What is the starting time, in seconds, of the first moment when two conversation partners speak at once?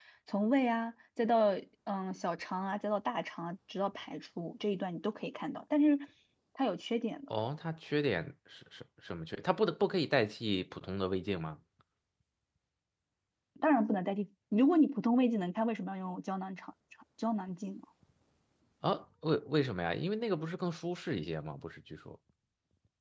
none

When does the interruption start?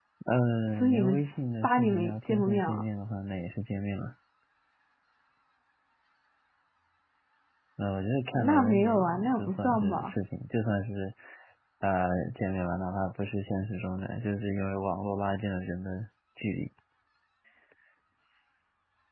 1 s

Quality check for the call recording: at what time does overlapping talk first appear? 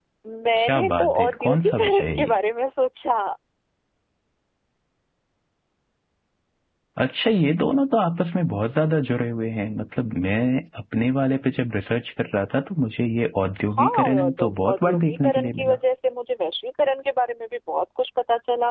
1 s

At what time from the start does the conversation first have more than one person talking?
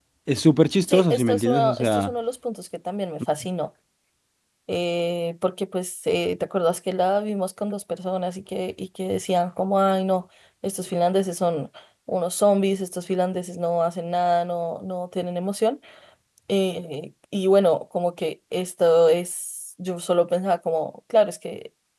1 s

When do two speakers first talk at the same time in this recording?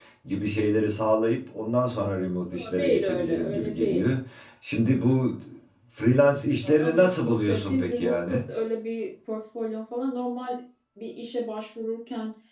2 s

